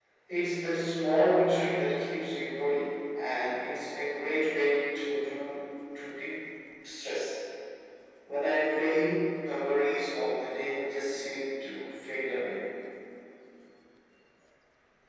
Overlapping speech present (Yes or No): No